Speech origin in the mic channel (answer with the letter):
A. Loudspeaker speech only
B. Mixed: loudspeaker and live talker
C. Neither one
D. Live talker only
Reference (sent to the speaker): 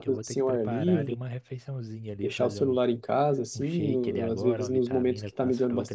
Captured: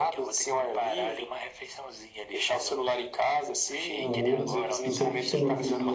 B